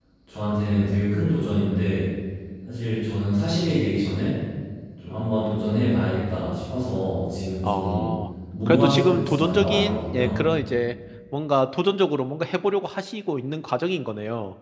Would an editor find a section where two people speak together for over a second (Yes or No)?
Yes